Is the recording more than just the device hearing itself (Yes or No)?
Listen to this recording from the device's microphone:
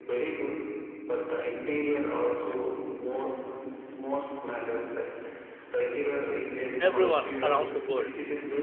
Yes